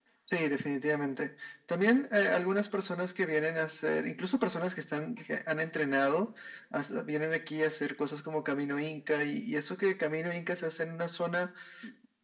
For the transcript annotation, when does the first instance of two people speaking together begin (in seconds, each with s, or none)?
none